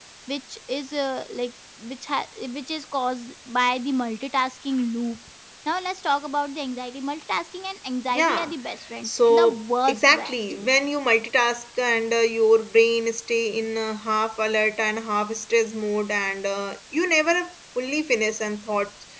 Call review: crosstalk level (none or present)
present